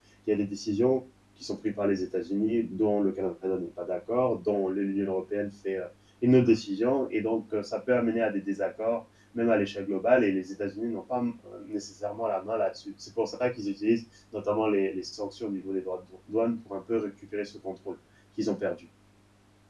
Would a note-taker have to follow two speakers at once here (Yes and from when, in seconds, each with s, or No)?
No